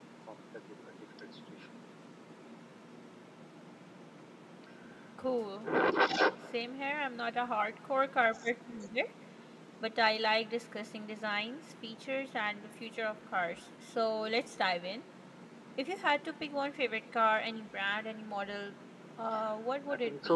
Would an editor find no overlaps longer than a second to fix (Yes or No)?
Yes